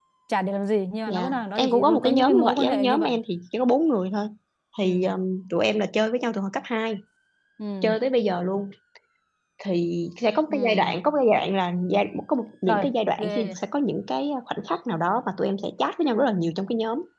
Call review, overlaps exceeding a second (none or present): present